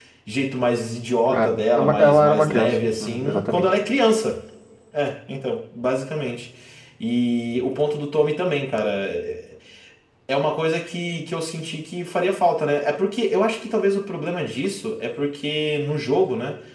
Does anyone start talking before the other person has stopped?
Yes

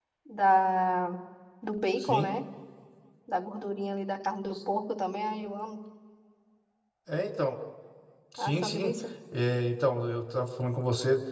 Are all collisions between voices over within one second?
Yes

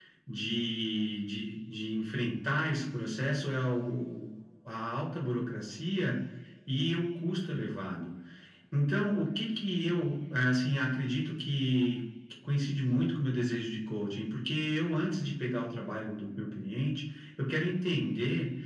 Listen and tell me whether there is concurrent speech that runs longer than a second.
No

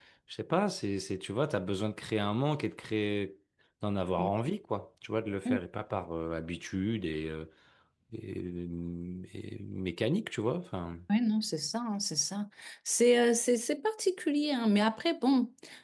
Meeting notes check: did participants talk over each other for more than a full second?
No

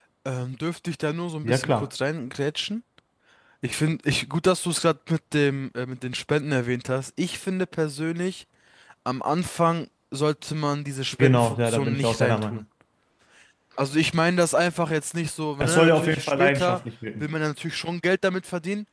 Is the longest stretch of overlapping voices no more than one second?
No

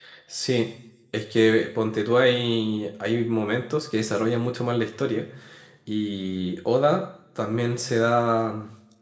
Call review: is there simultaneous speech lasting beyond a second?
No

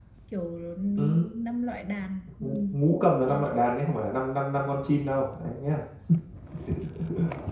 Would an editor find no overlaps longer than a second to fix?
Yes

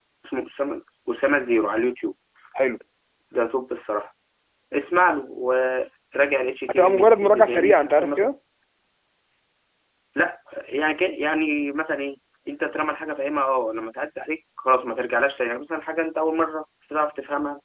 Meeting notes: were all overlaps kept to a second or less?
No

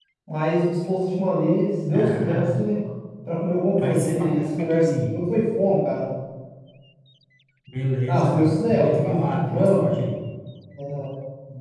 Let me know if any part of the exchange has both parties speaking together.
Yes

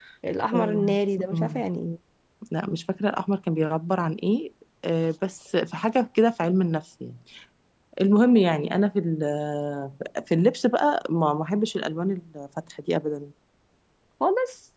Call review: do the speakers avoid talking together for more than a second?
Yes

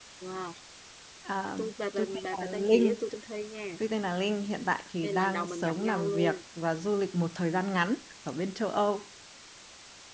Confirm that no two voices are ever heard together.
No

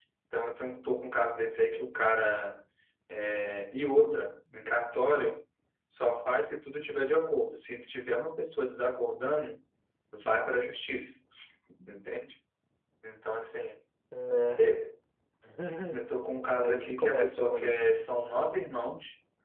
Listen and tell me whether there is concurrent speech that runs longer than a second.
Yes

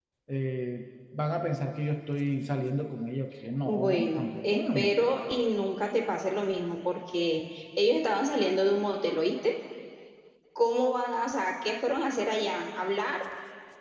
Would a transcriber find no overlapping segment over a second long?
No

